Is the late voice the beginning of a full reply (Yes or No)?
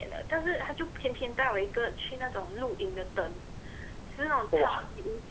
No